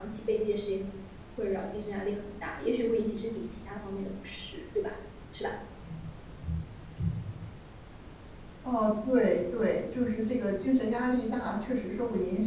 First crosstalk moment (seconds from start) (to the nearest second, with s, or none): none